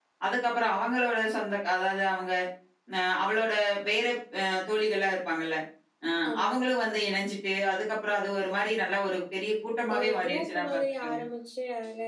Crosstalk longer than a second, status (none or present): present